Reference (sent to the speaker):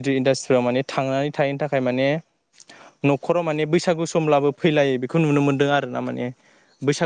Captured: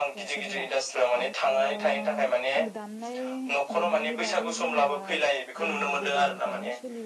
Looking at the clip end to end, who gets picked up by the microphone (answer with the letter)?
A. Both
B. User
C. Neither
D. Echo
A